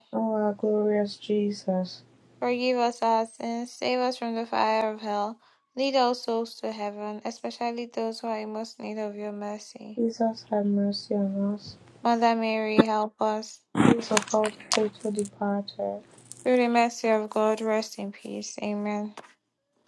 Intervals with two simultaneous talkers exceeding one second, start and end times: none

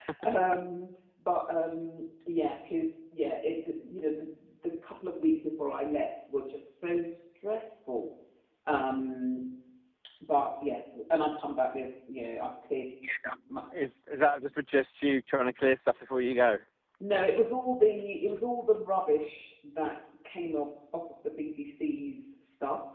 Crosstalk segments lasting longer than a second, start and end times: none

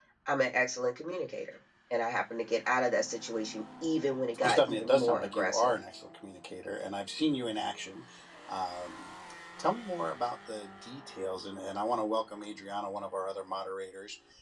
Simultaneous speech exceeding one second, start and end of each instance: 4.4-5.8

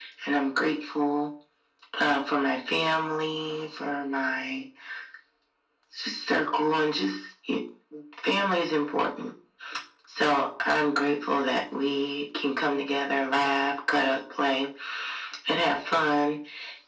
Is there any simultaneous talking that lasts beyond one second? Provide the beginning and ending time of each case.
none

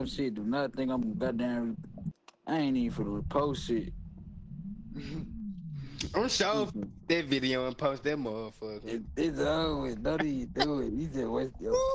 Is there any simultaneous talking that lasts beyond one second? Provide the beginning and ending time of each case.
none

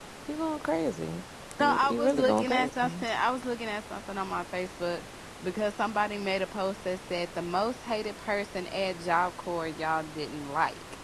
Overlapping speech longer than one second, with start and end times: 1.6-3.0

